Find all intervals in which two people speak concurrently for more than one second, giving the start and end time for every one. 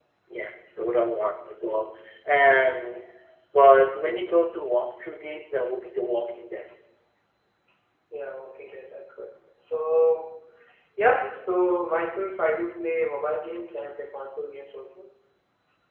none

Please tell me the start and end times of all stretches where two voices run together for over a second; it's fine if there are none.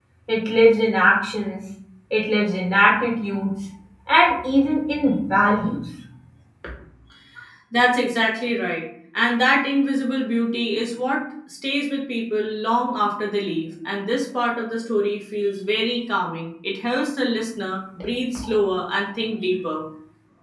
none

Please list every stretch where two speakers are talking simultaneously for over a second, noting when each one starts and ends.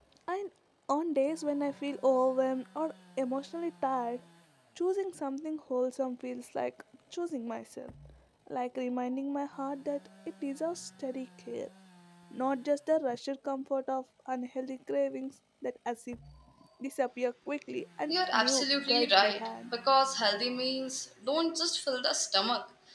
18.1-19.7

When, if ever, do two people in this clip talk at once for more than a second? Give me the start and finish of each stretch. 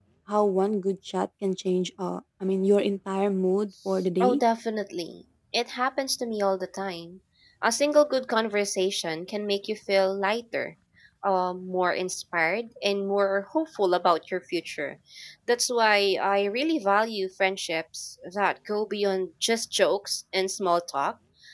none

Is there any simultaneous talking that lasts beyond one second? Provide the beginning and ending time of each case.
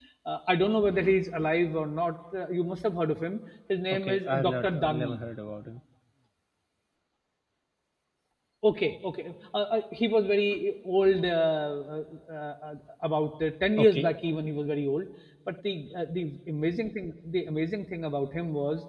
3.9-5.2

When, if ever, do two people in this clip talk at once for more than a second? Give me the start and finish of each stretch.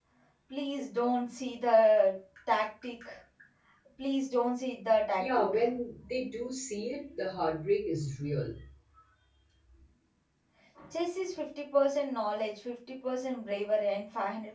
none

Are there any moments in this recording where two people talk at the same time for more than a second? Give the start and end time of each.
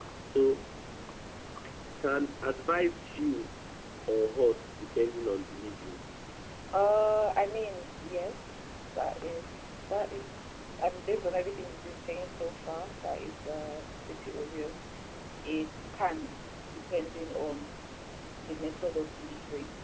none

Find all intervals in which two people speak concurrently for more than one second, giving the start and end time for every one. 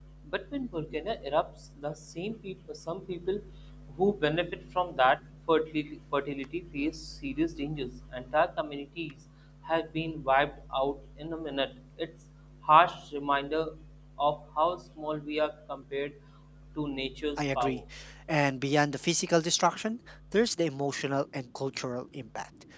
none

